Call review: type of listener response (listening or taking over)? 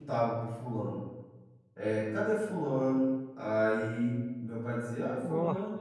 listening